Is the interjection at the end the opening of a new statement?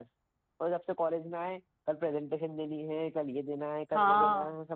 Yes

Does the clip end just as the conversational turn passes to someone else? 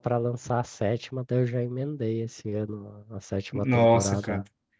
Yes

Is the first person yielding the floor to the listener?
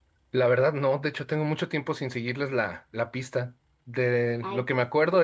No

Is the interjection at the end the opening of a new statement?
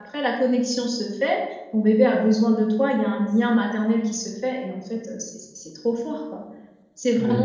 No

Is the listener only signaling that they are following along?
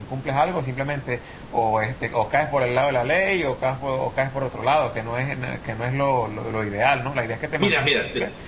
No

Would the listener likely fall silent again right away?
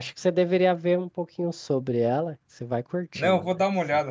No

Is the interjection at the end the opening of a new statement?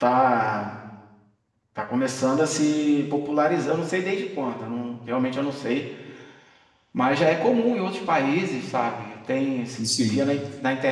No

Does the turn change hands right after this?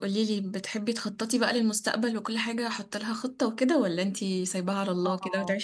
Yes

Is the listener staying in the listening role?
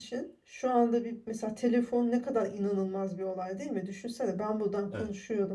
Yes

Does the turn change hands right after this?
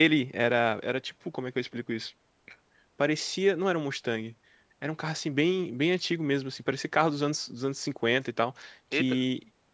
No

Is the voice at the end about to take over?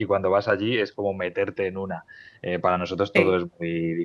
No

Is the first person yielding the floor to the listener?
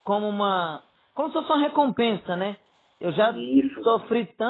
No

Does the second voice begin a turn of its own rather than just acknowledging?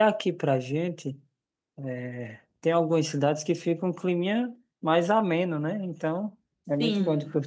No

